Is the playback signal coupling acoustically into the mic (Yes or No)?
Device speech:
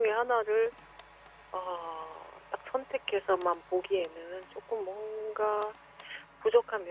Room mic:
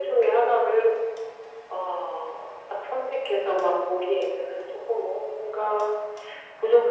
Yes